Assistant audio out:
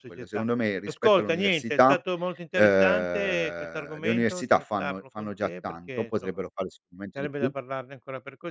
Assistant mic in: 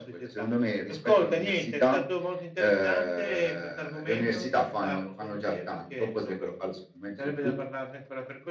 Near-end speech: none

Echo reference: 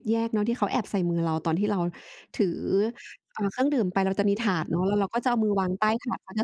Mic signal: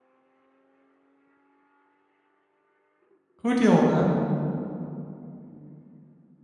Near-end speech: present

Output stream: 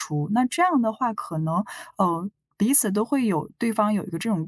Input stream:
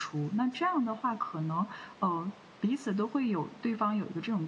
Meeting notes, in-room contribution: none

